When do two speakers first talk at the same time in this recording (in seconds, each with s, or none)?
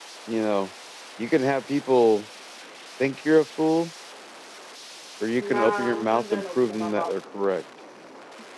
5.4 s